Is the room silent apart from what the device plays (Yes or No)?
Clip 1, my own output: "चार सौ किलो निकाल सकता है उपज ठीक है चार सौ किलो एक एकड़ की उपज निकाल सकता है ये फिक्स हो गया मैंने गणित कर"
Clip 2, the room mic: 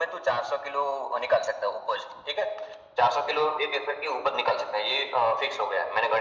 Yes